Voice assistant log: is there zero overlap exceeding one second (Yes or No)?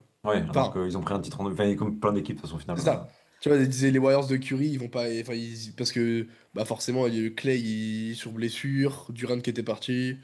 Yes